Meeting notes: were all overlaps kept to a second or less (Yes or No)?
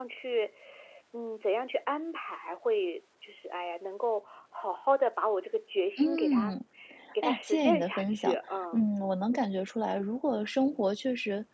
No